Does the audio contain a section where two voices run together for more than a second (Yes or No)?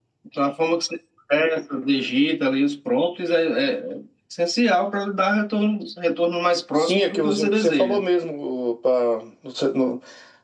Yes